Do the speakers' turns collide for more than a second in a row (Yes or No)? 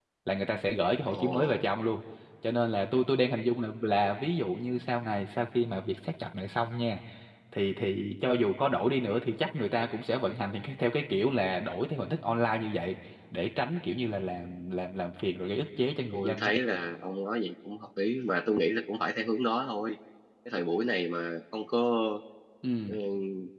No